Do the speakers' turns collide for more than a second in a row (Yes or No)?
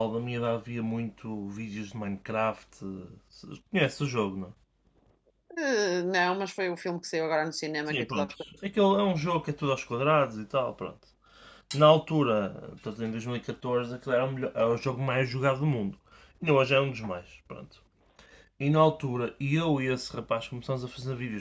No